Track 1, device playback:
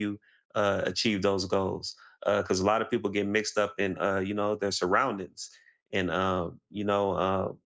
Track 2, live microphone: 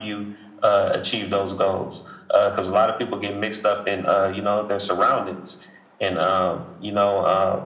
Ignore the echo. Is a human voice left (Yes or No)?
No